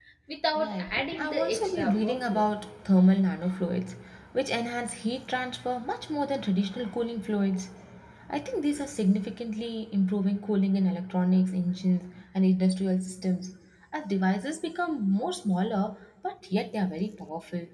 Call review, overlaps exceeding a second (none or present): present